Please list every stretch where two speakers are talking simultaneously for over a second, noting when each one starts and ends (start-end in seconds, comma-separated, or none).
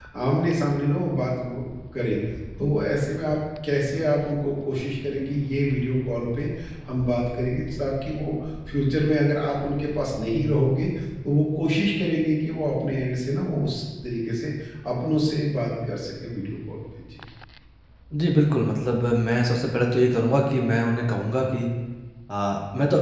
none